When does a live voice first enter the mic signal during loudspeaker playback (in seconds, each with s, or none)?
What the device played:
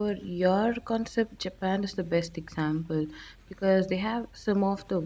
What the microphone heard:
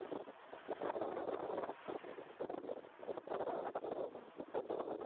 none